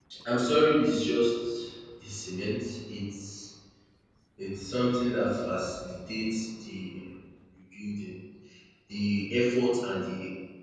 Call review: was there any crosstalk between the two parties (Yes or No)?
No